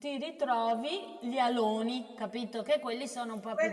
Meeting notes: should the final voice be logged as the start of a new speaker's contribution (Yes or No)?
Yes